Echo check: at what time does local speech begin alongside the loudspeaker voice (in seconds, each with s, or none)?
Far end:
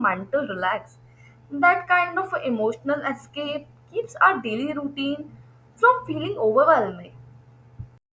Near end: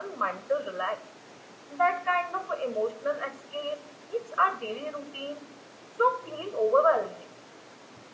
none